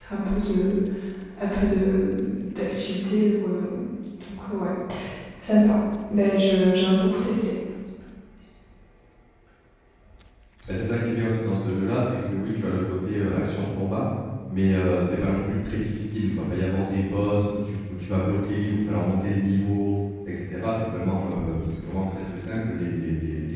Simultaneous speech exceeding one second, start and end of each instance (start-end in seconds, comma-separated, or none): none